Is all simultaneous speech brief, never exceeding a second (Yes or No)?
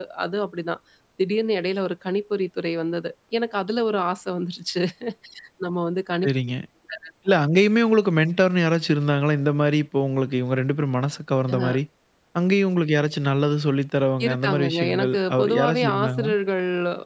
No